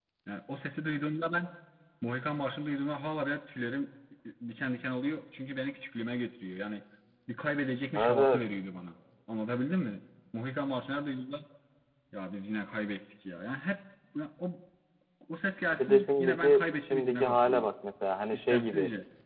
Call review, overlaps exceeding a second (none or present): present